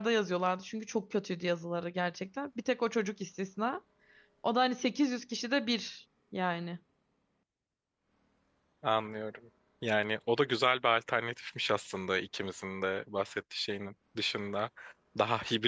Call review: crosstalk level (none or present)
none